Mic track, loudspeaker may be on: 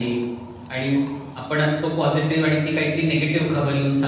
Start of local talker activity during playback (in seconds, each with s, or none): none